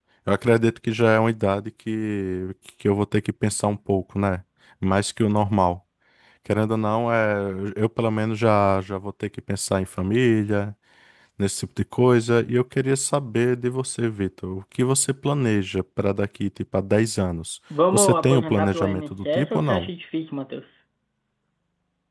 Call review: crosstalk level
present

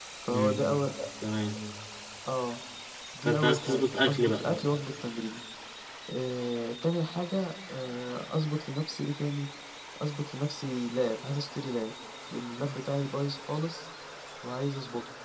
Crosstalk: present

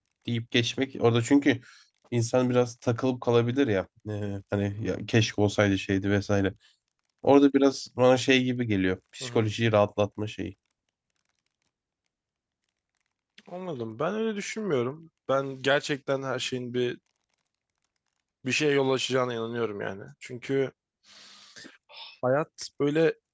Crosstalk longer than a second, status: none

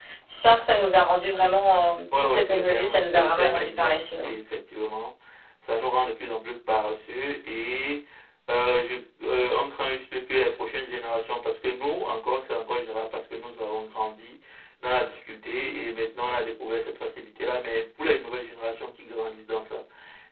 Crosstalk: present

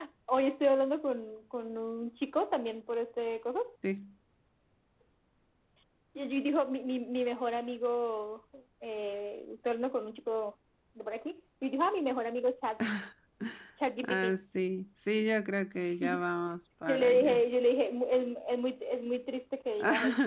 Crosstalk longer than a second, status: none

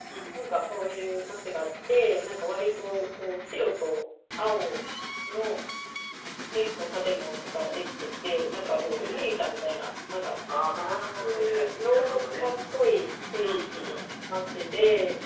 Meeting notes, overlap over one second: present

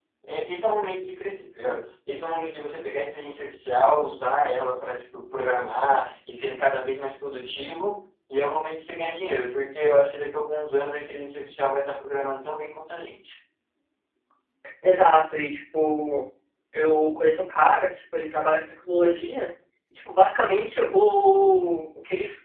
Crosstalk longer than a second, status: none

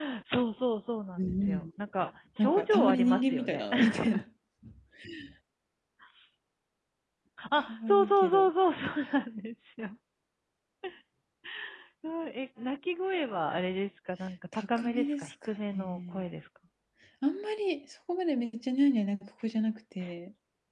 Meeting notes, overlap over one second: present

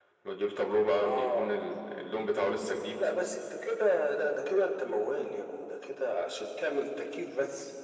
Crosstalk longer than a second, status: none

